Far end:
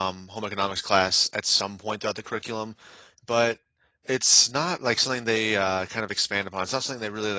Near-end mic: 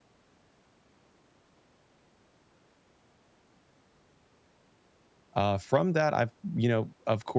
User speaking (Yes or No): Yes